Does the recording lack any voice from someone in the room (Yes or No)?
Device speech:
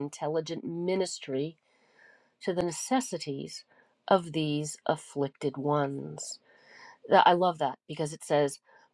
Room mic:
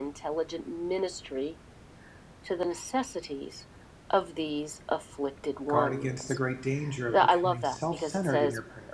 No